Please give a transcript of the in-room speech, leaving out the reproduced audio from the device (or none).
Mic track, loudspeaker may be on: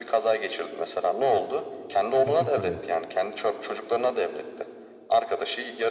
Tabii ki de.